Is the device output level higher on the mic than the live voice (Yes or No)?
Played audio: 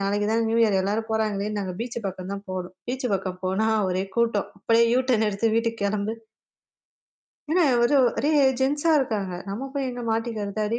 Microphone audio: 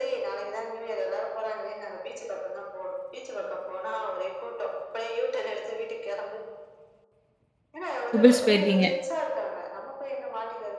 No